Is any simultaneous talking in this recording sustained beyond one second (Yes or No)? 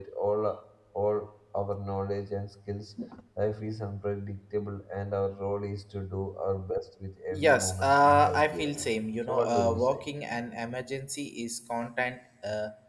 Yes